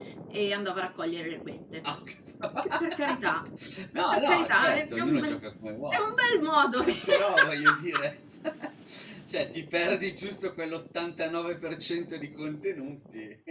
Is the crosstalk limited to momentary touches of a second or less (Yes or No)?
No